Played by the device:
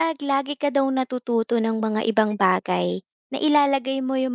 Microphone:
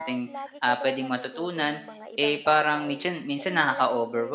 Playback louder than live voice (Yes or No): No